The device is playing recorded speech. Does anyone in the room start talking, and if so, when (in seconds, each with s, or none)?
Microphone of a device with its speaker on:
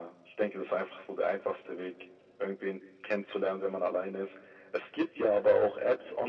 none